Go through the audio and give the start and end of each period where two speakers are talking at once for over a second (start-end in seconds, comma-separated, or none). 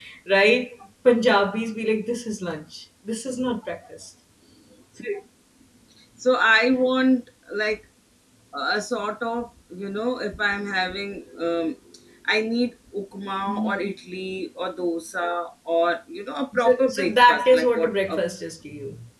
16.6-18.2